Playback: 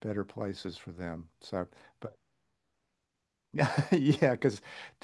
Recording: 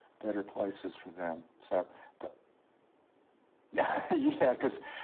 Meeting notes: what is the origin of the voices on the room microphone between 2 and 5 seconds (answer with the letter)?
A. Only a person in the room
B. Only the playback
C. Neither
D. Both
B